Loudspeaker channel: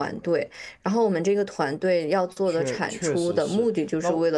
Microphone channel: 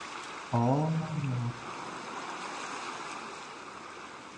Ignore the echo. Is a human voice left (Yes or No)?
Yes